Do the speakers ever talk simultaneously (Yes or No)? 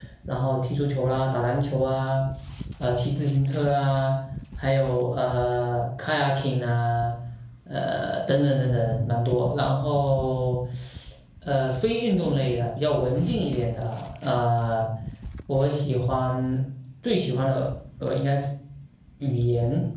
No